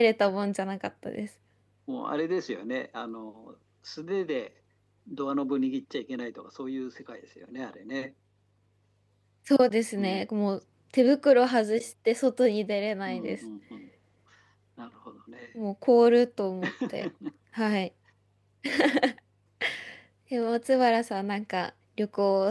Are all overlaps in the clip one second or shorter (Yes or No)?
Yes